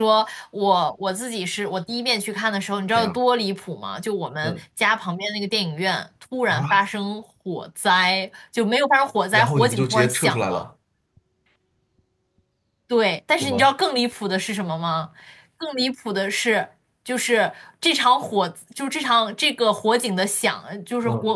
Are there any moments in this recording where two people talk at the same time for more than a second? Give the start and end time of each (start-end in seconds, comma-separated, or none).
9.3-10.7